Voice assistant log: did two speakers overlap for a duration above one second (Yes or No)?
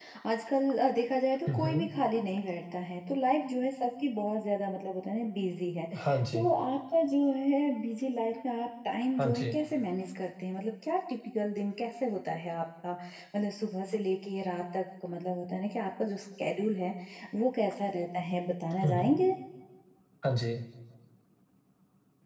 No